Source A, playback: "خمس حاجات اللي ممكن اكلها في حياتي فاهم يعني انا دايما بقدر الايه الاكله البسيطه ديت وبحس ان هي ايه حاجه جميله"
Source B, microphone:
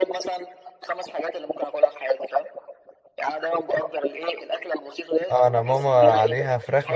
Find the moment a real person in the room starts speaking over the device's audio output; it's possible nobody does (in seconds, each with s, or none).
5.3 s